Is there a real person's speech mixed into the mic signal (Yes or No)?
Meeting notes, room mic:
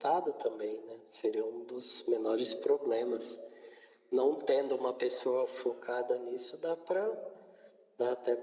No